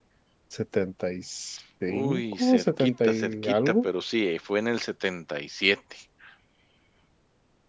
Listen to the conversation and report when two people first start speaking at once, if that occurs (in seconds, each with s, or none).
1.9 s